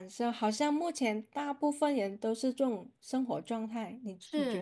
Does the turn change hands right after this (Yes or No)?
Yes